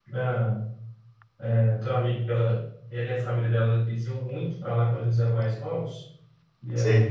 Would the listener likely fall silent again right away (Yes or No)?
Yes